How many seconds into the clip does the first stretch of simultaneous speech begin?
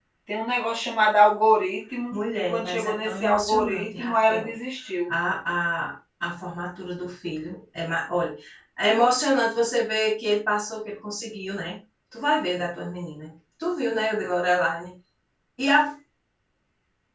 2 s

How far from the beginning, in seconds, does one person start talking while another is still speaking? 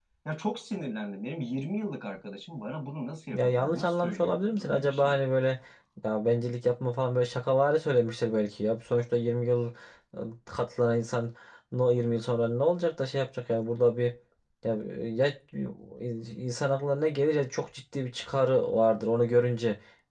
3 s

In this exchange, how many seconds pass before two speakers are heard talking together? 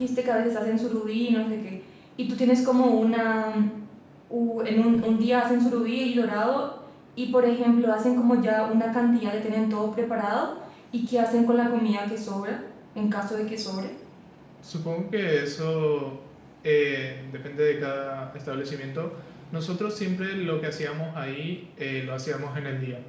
none

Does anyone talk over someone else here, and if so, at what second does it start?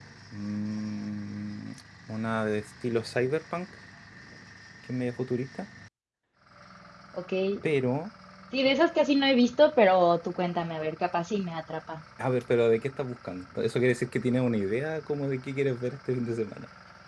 none

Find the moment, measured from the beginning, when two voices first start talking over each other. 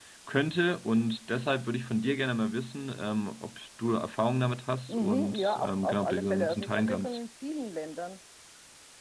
5 s

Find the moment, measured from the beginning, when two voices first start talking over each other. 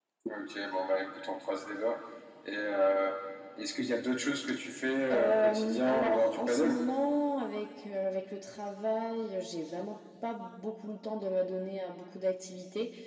5 s

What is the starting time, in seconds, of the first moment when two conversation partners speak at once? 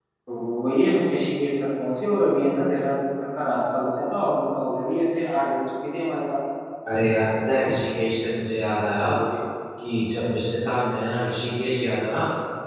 none

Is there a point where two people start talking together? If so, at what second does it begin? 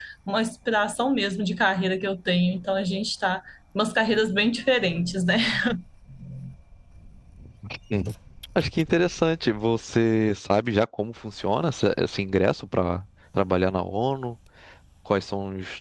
none

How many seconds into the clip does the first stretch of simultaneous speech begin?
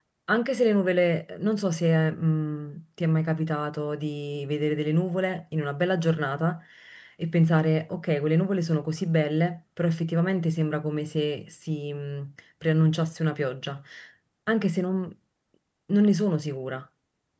none

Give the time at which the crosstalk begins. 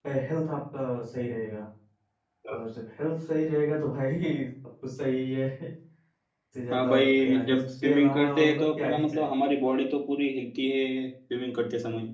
7 s

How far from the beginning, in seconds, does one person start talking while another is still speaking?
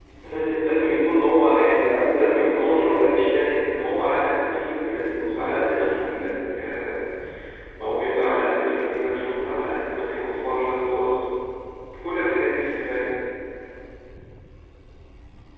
1 s

